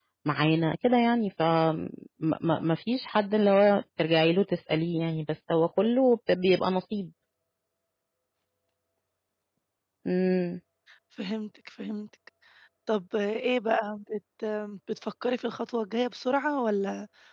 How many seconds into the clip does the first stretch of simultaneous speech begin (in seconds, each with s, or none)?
none